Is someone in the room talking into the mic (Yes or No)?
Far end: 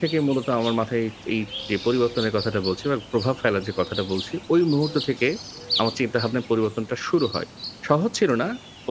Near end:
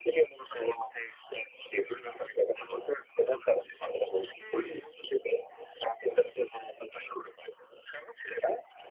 Yes